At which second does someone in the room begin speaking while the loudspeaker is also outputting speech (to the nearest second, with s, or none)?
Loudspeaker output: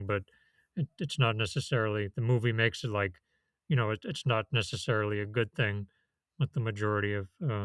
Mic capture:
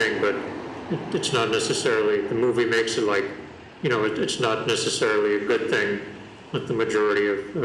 none